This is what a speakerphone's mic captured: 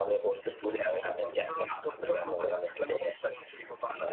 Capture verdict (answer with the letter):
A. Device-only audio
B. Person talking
A